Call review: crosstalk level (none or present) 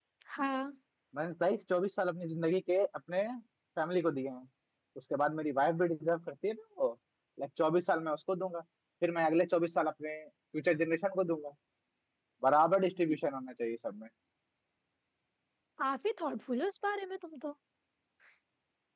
none